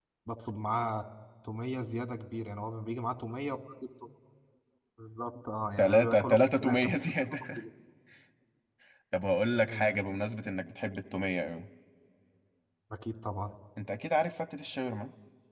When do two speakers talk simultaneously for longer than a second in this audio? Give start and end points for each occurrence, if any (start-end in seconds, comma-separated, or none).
5.8-7.6